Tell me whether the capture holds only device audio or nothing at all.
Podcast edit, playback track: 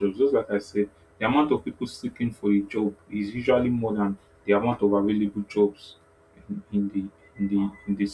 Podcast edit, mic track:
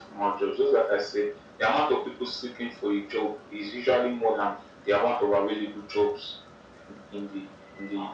Yes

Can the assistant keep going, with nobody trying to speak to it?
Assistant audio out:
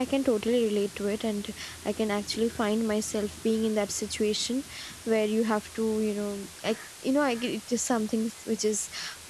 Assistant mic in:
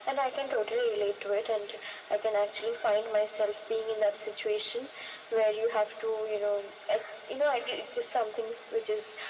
Yes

